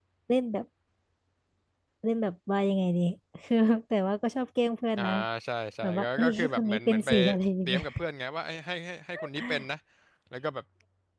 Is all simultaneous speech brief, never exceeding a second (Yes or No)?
No